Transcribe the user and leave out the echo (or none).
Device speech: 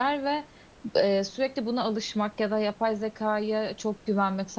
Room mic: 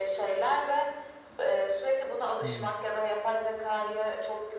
Hı hı.